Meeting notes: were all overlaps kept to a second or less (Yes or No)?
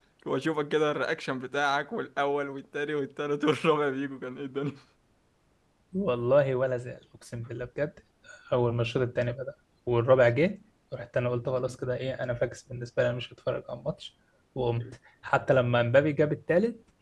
Yes